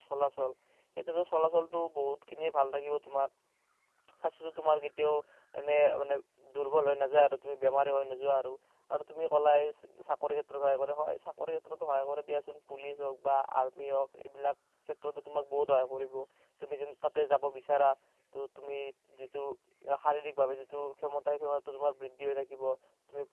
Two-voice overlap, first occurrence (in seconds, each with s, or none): none